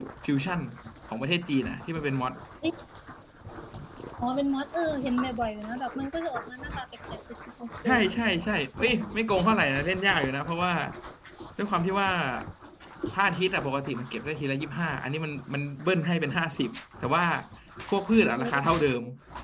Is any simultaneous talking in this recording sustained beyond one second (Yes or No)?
No